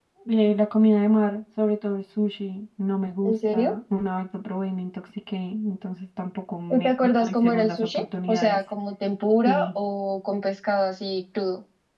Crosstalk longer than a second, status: present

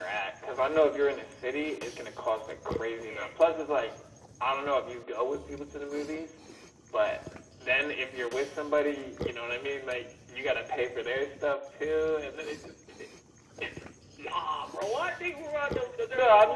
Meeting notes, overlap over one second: none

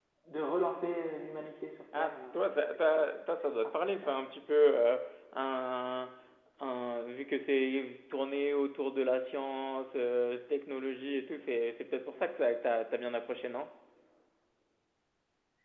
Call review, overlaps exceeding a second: none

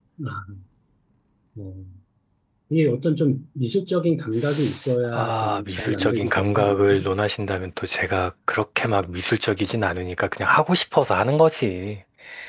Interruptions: present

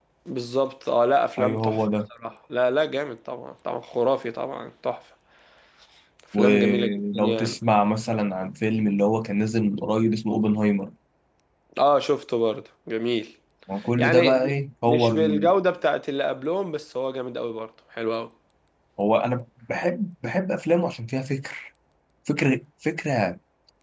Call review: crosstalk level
present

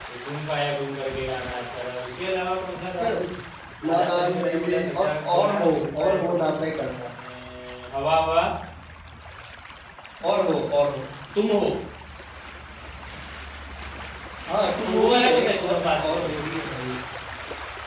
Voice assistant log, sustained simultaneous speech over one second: present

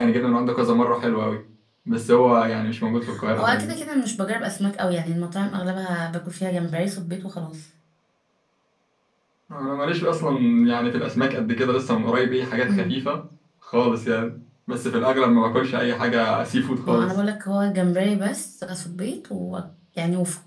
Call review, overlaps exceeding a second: none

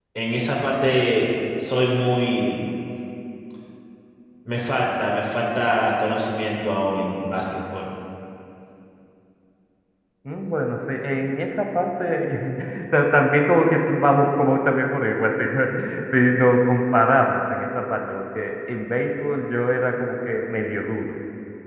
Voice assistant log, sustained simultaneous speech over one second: none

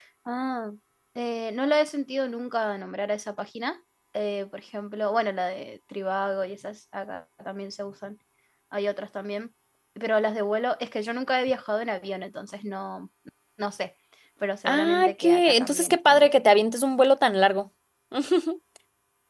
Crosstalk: present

